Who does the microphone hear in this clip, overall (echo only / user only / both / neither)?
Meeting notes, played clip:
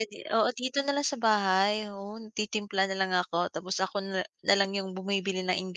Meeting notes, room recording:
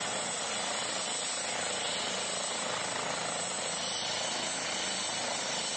neither